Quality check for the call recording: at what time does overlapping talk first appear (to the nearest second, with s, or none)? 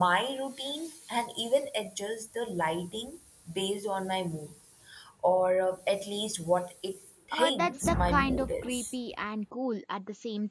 7 s